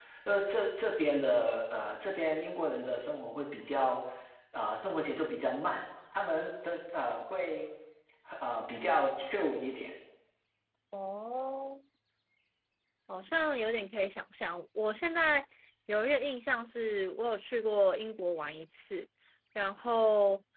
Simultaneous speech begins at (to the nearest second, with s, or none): none